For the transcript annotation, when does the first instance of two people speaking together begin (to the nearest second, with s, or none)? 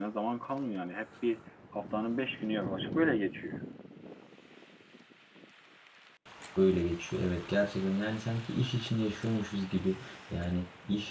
none